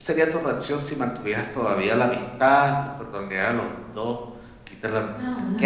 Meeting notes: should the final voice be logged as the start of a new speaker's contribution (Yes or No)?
Yes